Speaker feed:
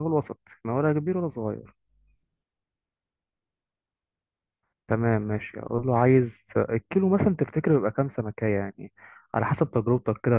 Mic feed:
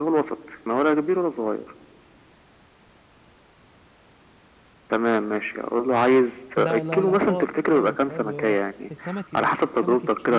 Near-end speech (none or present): present